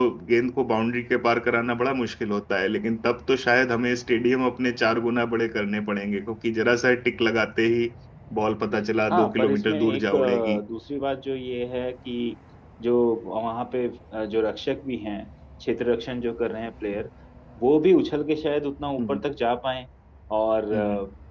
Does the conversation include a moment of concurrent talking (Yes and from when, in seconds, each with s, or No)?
Yes, from 9.1 s